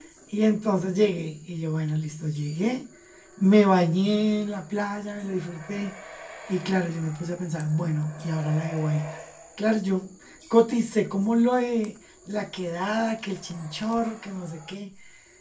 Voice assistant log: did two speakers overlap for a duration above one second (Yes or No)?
No